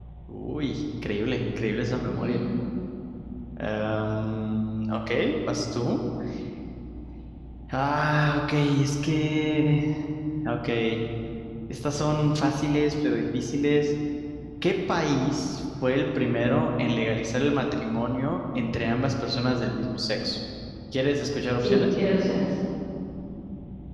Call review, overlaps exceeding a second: none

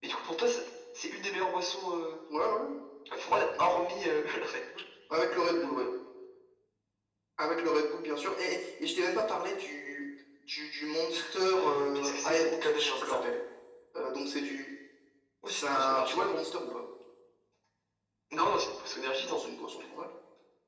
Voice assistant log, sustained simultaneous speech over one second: present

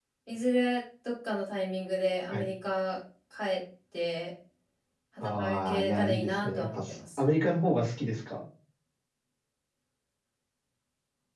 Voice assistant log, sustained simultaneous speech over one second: present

